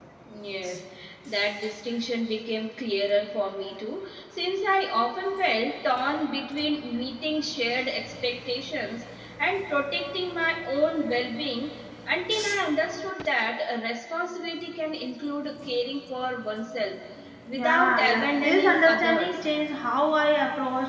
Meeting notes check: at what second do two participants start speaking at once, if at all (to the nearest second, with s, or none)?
18 s